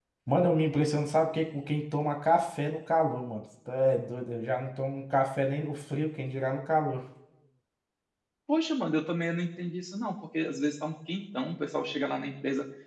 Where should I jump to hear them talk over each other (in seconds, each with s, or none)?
none